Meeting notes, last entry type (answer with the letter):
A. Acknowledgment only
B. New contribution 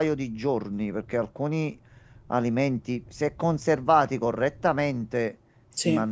A